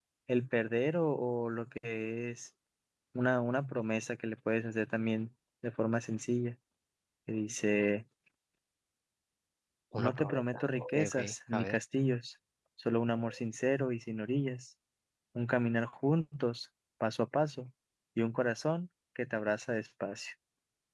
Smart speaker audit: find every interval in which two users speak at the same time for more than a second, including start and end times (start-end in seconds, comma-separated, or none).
10.0-11.8